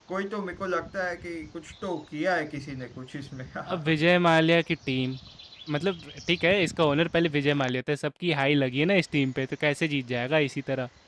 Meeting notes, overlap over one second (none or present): none